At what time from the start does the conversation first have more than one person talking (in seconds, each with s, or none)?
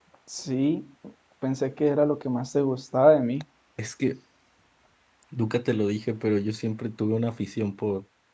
none